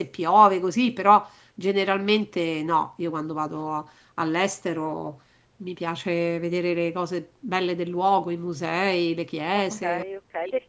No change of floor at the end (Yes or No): No